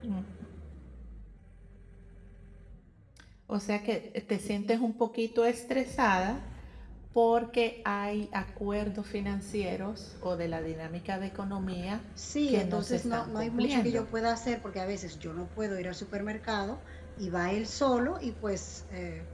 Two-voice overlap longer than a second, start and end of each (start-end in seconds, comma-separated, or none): 12.5-14.1